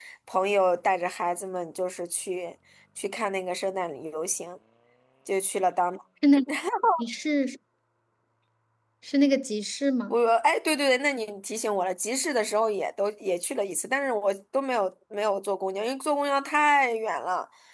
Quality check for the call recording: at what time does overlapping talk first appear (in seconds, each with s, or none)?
none